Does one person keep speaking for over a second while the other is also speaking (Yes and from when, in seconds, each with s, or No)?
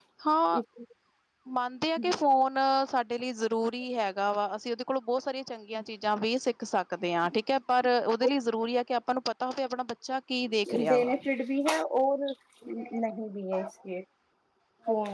No